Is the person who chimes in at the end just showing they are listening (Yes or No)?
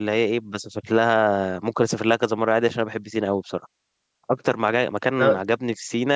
Yes